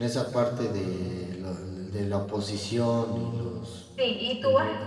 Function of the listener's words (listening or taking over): taking over